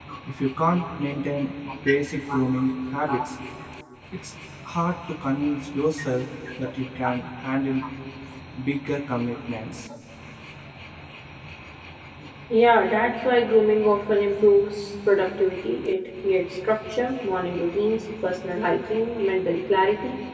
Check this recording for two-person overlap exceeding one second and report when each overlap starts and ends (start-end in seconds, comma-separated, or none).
none